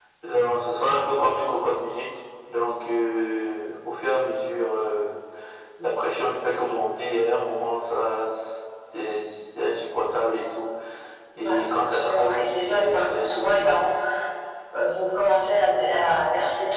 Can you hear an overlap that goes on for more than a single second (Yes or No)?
Yes